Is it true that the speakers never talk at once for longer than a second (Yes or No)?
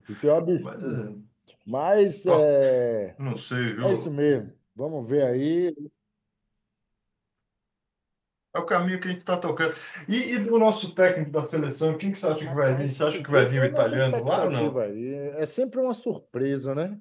No